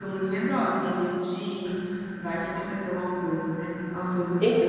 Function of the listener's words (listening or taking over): listening